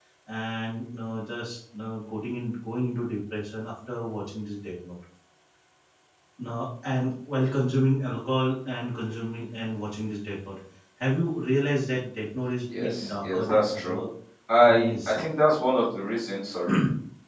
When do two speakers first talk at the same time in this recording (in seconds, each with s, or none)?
12.8 s